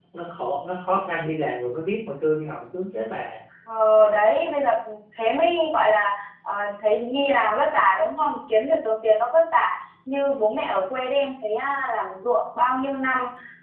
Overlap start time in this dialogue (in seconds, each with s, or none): none